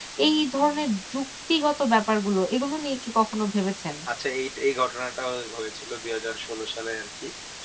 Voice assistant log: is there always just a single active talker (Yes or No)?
Yes